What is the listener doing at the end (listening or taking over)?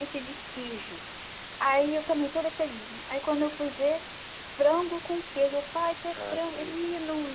listening